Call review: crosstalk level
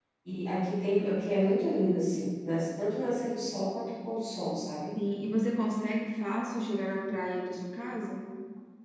none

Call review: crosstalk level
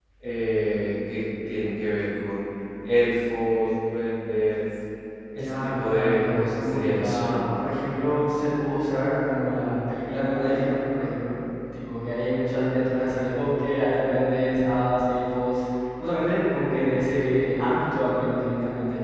present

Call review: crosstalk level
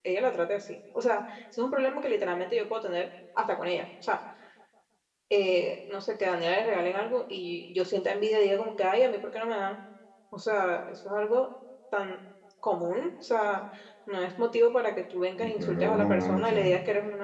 present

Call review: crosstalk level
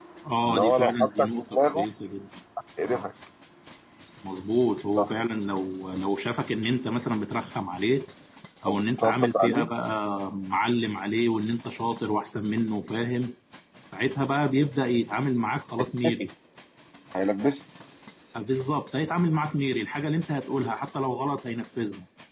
present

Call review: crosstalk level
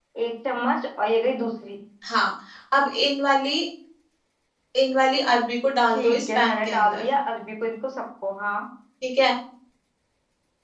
present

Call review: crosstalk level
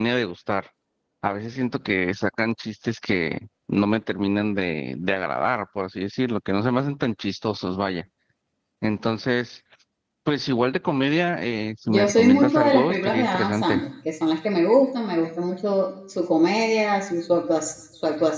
present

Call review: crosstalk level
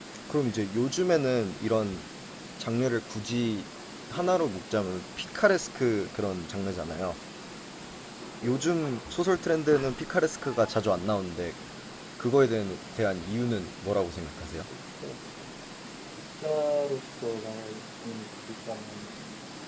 none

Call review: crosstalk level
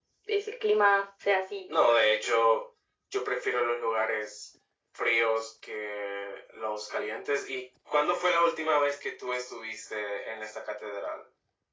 none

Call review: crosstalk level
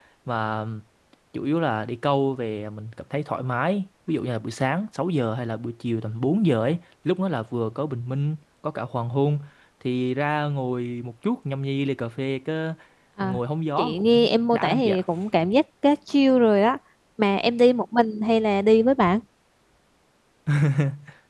present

